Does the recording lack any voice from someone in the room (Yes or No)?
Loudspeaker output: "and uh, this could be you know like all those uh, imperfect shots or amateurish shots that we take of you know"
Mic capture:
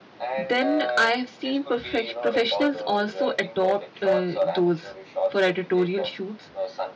No